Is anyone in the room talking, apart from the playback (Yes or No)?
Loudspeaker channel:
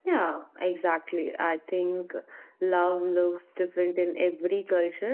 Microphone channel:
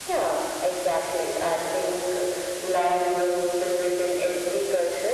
No